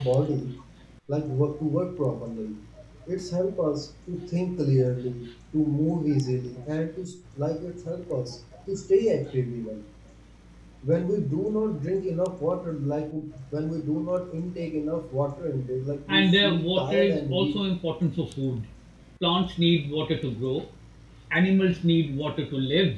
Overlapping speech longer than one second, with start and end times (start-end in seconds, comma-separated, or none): 16.1-17.6